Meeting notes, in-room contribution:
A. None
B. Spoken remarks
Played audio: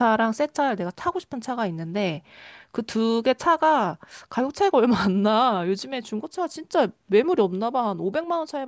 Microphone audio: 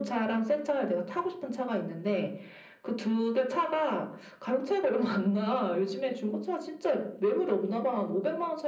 A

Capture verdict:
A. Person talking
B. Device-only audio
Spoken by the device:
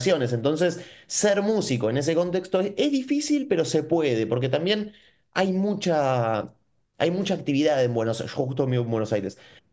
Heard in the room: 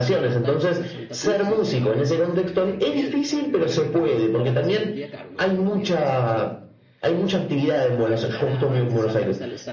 A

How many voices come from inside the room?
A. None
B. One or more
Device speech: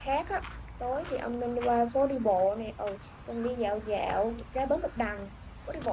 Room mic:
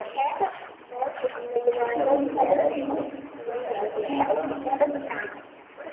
B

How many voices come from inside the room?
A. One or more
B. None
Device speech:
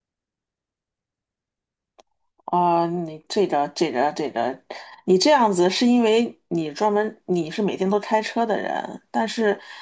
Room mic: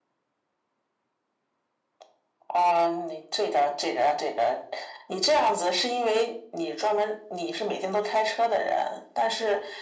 B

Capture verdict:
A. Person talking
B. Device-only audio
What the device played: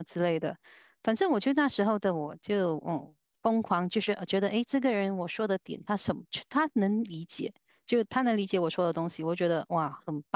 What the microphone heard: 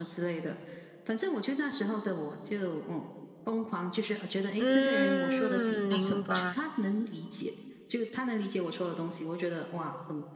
A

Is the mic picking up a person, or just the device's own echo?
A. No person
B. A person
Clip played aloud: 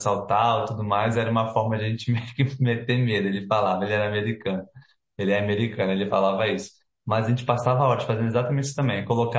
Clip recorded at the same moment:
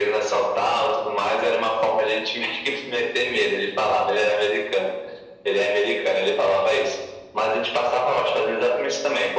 A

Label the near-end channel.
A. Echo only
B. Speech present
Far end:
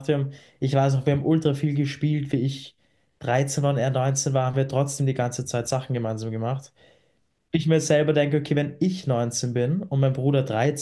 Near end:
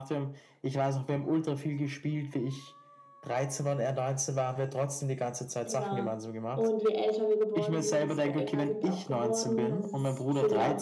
B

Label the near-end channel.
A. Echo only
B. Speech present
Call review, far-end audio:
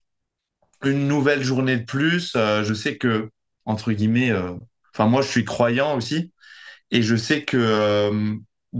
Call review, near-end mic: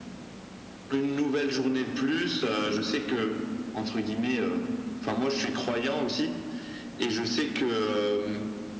A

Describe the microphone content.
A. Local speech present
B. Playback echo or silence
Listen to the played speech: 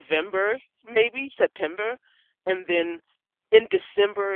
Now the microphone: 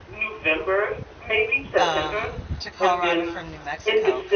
A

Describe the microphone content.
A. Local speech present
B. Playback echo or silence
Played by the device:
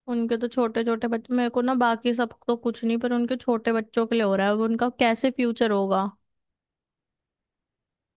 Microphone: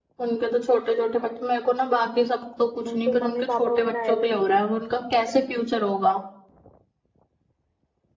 A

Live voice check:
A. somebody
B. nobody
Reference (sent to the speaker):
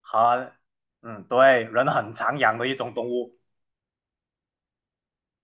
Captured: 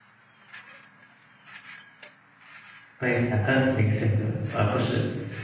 A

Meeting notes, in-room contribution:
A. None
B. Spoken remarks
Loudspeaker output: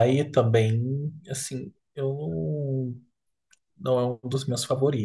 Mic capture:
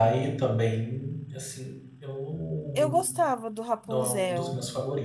B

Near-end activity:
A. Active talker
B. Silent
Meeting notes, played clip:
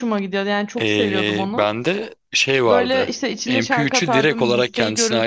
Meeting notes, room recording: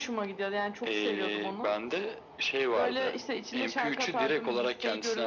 B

